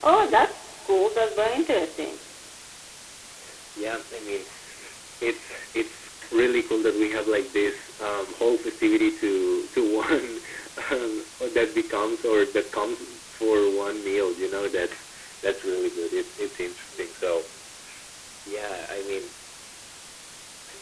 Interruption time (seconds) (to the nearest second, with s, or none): none